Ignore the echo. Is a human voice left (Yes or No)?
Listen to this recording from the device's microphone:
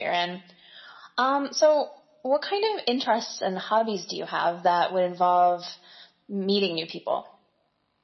No